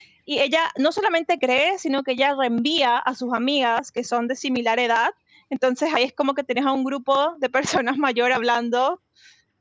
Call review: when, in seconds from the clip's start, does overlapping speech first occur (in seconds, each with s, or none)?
none